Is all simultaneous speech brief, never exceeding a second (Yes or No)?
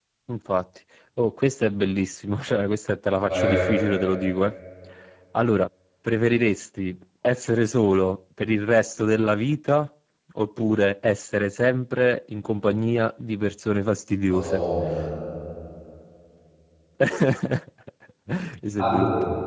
Yes